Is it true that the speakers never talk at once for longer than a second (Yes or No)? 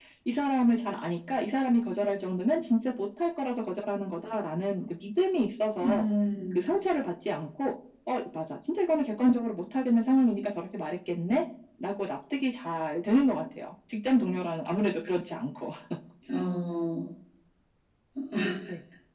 Yes